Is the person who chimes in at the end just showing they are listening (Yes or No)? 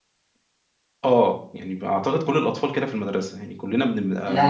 No